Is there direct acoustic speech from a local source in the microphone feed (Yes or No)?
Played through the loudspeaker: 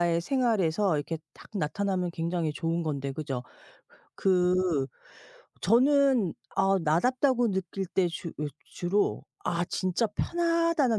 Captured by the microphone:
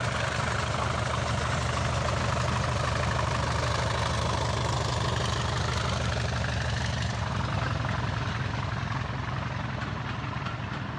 No